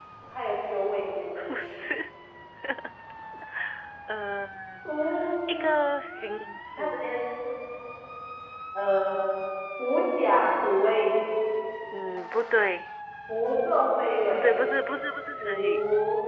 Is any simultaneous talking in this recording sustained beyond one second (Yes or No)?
No